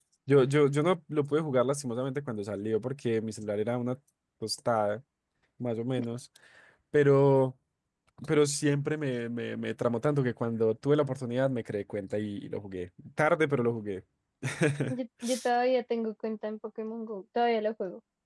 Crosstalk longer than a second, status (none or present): none